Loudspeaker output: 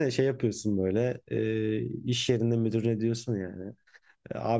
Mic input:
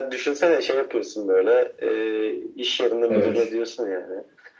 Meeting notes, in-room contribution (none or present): present